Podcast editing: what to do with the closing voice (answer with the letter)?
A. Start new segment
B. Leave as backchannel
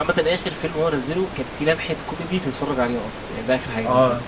A